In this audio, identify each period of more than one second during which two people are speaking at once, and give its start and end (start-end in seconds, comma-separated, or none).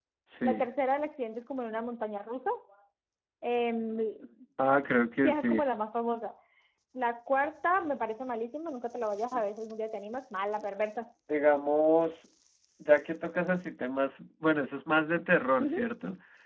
none